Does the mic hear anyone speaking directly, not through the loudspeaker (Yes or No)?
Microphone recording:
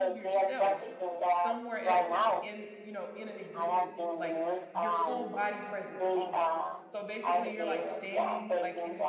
Yes